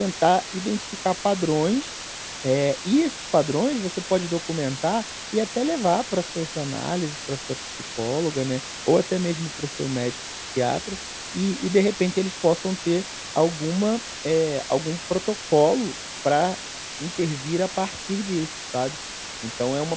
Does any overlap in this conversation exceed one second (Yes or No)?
No